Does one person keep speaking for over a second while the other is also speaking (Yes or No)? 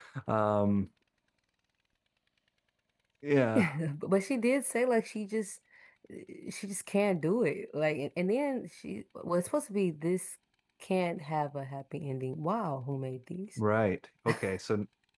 No